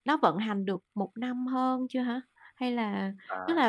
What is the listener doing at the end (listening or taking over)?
listening